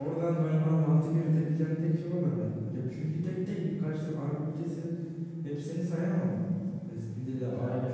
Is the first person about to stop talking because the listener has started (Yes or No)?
No